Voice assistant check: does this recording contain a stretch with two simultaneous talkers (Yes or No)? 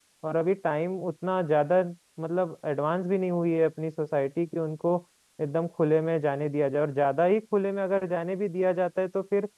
No